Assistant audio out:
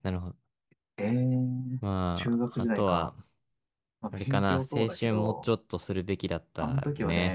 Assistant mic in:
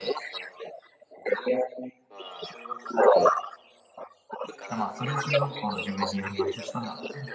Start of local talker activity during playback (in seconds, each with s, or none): 4.7 s